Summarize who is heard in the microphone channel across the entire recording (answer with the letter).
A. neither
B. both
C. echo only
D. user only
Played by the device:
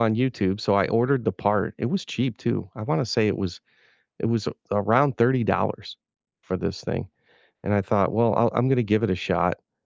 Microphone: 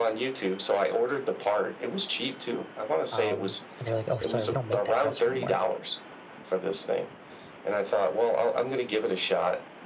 B